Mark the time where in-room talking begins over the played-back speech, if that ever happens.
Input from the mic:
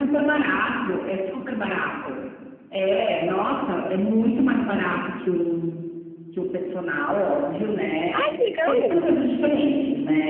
8.1 s

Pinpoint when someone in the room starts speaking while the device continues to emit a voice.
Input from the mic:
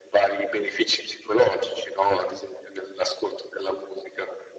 none

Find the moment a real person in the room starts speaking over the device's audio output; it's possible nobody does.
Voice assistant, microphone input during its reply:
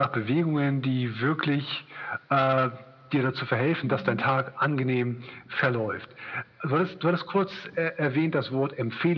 3.8 s

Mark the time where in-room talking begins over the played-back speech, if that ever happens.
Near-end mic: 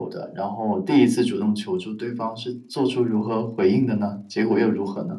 none

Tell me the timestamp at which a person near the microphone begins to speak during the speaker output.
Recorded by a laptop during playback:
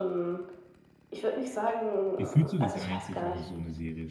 2.2 s

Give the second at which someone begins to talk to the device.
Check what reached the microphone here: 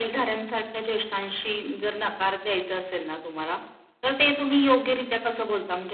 none

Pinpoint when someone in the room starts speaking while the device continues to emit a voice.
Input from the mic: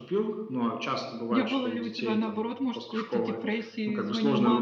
1.3 s

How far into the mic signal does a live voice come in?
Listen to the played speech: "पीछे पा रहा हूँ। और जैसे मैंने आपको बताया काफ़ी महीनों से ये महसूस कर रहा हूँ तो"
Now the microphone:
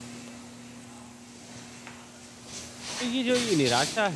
3.0 s

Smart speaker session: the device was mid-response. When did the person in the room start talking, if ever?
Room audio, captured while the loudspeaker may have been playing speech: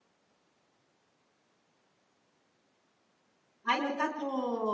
3.6 s

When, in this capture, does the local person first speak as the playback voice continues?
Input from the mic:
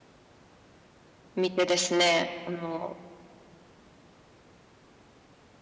1.4 s

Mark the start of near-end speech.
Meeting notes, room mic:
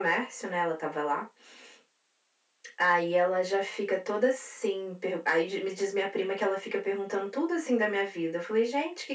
none

